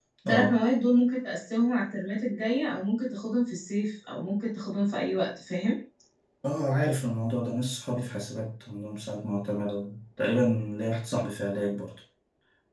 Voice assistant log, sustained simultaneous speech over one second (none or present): none